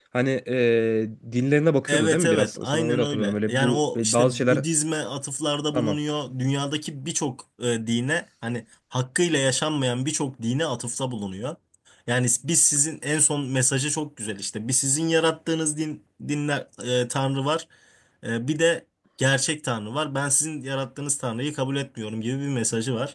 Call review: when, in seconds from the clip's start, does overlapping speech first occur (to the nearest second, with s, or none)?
2 s